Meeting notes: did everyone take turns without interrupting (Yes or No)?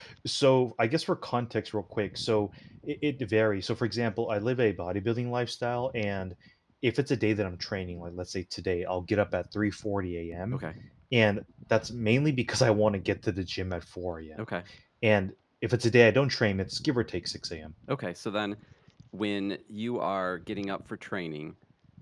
Yes